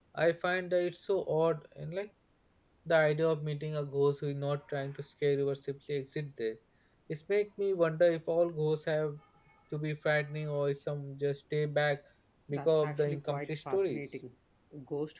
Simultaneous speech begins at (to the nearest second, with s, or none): 13 s